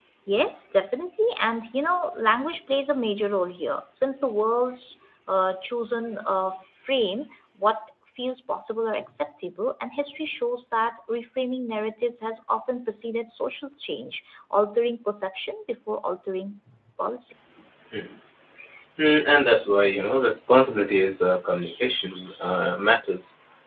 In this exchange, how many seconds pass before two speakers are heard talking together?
none

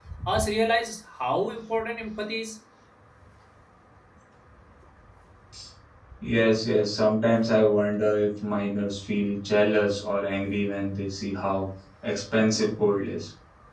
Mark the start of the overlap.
none

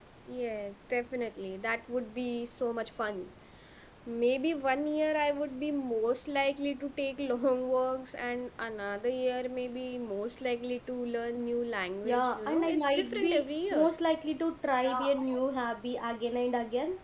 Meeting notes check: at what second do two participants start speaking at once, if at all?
12.0 s

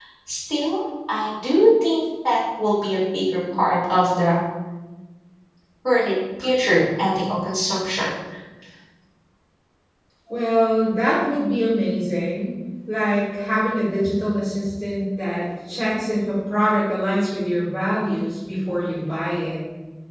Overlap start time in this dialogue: none

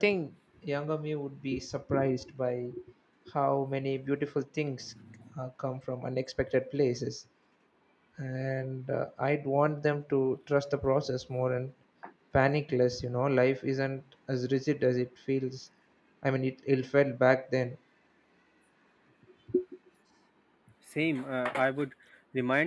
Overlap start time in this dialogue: none

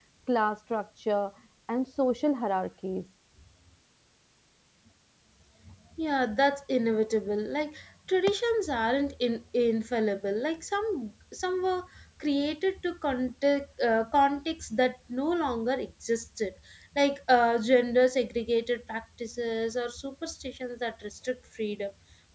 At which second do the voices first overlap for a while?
none

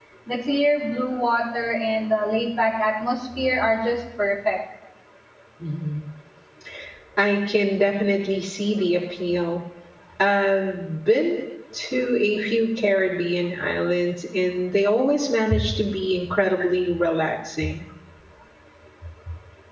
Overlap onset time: none

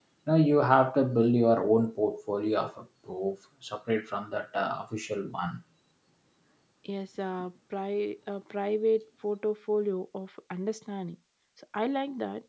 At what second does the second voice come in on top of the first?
none

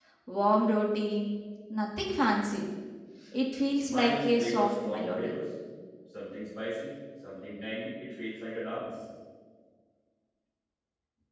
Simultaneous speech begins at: 3.9 s

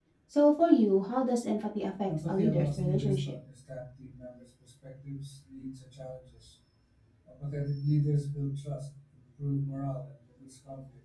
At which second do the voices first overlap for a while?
2.1 s

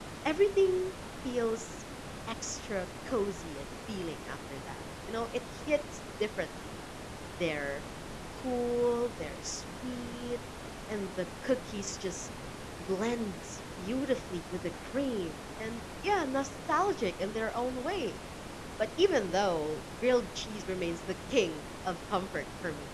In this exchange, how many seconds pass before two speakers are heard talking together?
none

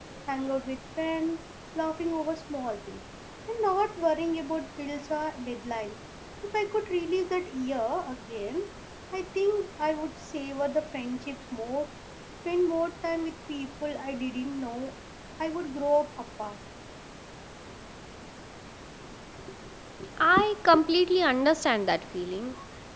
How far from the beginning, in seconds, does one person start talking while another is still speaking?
none

